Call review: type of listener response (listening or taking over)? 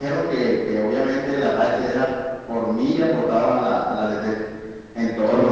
taking over